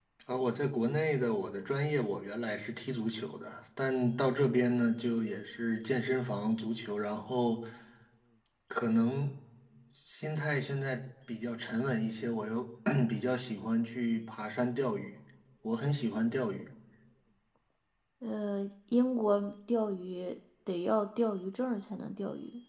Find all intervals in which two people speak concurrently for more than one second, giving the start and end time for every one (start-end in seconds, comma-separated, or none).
none